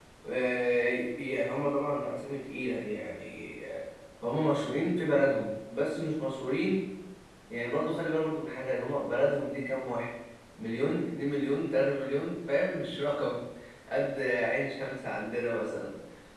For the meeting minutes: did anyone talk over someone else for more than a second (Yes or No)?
No